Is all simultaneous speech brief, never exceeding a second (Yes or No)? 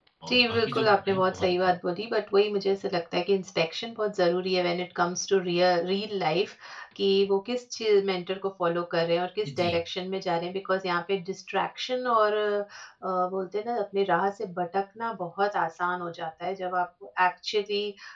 No